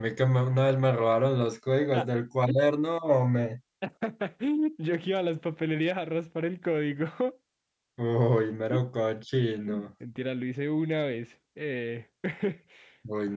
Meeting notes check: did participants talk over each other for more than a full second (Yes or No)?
No